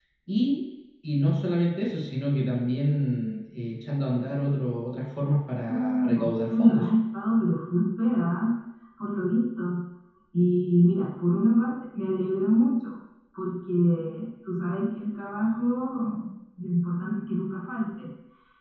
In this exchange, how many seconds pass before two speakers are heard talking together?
5.7 s

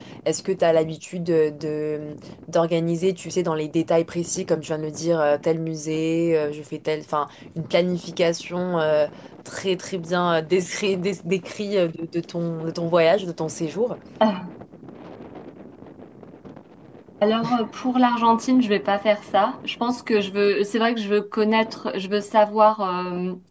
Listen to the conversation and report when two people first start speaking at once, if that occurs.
none

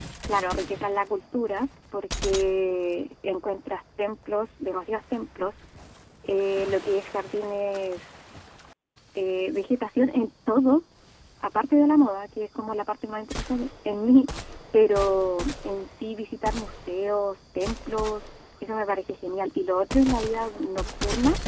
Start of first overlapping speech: none

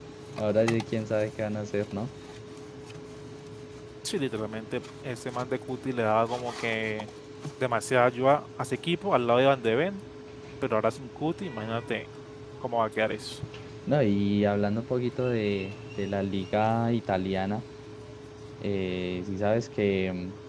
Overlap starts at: none

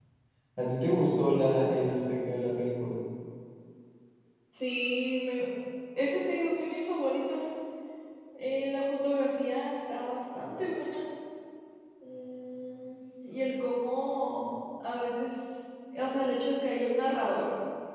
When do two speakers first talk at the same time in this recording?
none

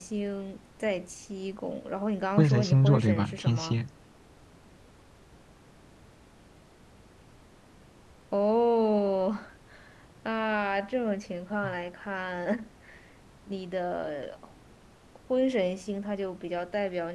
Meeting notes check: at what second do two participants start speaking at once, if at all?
2.4 s

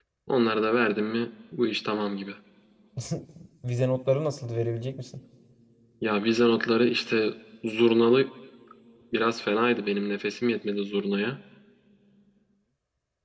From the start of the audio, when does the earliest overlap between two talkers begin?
none

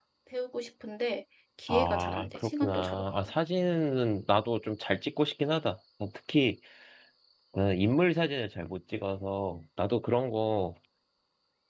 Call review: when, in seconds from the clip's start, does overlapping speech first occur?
1.7 s

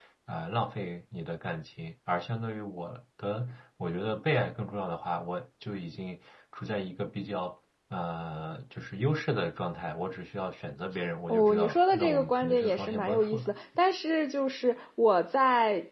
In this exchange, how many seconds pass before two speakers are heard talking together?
11.3 s

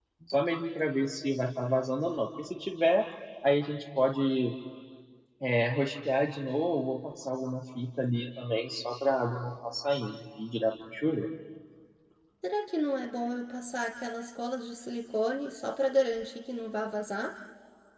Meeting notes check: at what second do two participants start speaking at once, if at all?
none

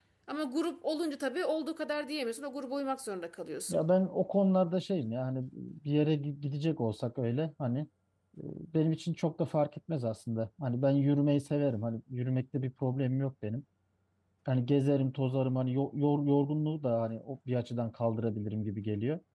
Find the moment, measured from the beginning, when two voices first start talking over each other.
none

